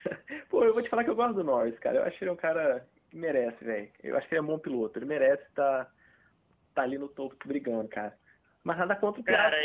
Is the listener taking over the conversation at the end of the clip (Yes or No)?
Yes